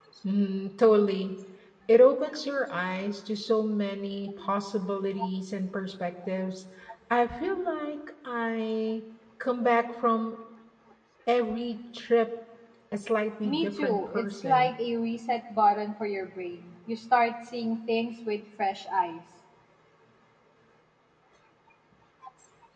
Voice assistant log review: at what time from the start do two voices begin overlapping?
13 s

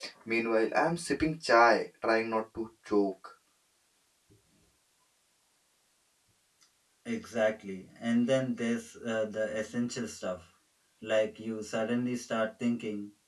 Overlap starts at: none

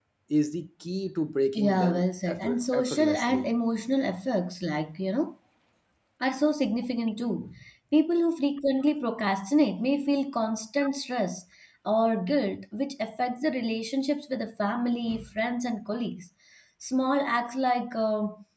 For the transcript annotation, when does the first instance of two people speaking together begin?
2 s

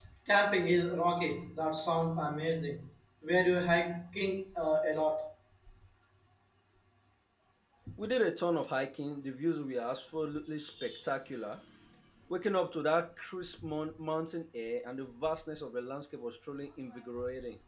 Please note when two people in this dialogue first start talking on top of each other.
none

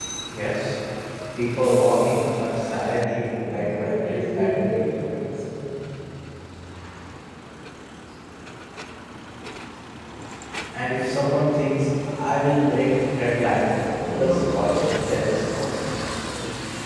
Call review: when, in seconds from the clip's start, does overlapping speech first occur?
4 s

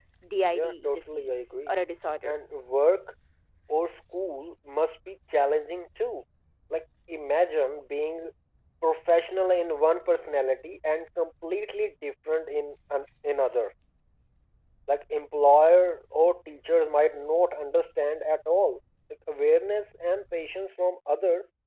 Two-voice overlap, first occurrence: 1 s

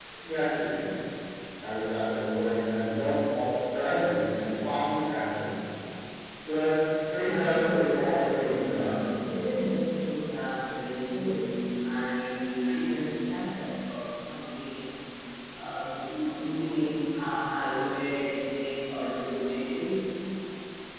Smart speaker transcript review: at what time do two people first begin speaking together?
7 s

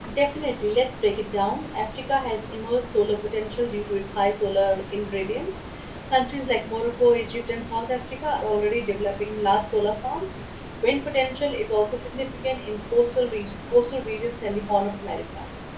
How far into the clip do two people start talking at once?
none

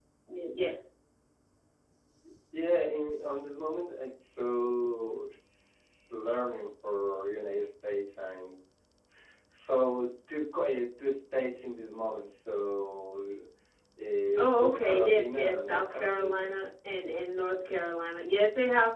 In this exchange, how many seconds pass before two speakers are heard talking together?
14 s

